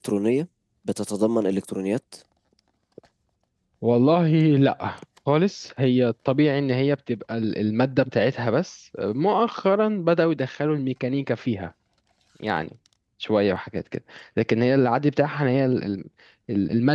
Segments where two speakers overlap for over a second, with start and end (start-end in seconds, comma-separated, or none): none